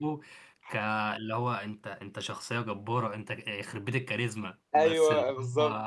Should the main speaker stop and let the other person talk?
Yes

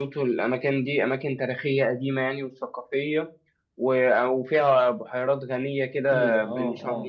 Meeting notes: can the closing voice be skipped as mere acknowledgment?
No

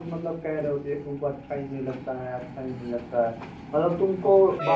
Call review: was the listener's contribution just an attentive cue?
Yes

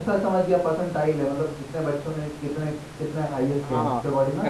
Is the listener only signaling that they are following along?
No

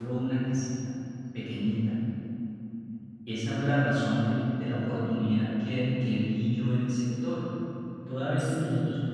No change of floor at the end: Yes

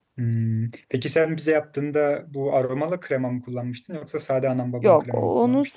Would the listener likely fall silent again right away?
No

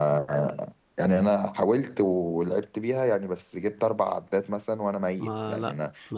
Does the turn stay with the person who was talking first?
No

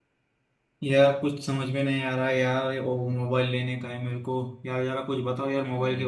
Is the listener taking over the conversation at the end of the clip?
No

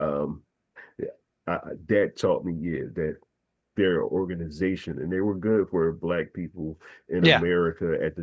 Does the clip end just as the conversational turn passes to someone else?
No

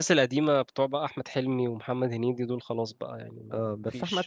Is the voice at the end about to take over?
Yes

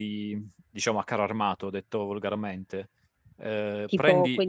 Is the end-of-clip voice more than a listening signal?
Yes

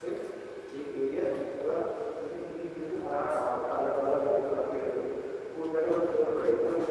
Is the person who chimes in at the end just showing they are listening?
Yes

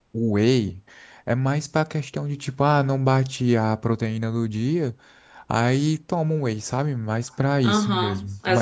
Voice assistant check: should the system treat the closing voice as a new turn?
Yes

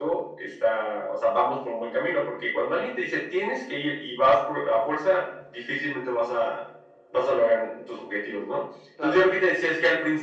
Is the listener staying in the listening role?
Yes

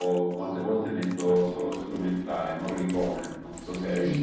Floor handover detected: Yes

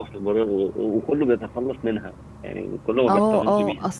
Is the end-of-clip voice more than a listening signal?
Yes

